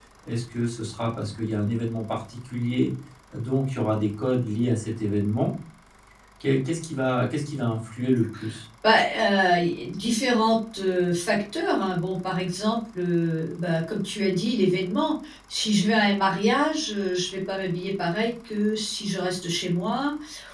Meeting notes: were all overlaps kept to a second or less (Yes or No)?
Yes